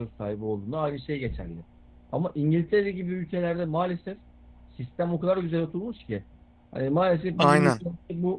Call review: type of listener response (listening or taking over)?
listening